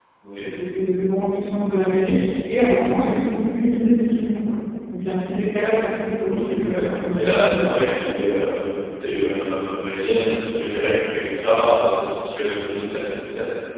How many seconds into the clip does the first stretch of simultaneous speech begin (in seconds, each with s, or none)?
6.3 s